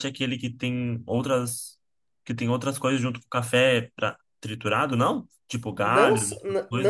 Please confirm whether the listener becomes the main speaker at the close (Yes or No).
Yes